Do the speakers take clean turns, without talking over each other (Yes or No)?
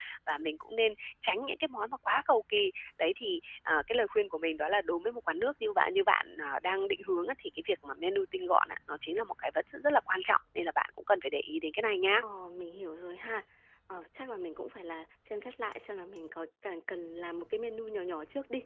Yes